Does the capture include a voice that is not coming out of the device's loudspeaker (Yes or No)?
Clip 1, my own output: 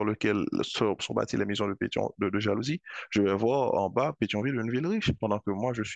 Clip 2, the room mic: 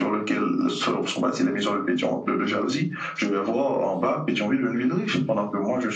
No